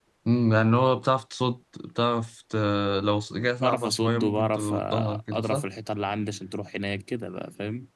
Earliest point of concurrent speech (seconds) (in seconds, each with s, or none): 3.6 s